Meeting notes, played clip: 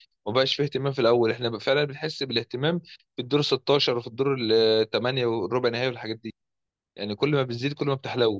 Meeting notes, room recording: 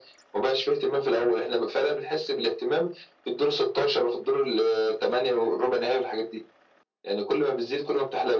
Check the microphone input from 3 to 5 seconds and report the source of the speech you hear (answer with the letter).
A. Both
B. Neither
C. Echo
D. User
C